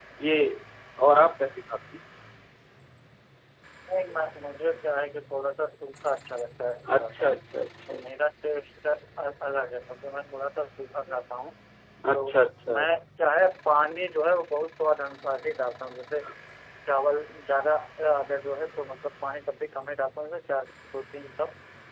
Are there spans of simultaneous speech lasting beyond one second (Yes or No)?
No